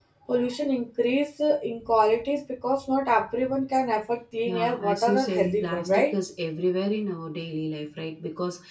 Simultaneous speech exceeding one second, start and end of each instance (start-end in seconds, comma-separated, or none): 4.5-6.2